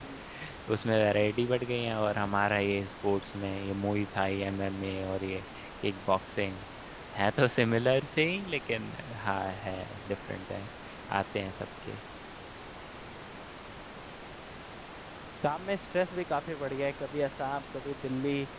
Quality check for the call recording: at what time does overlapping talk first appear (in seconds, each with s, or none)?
none